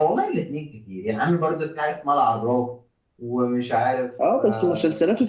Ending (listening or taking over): taking over